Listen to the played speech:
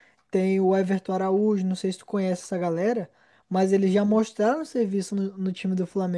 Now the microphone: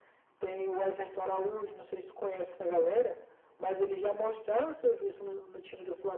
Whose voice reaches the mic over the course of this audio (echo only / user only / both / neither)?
echo only